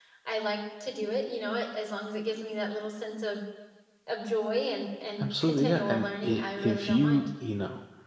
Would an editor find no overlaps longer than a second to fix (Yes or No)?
No